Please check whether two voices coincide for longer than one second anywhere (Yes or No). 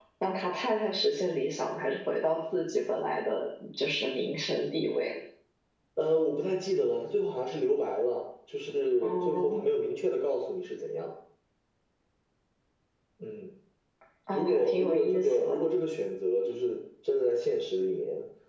Yes